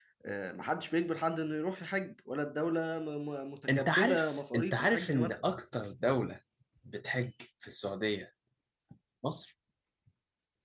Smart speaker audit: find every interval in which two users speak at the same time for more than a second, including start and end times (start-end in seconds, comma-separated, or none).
3.7-5.4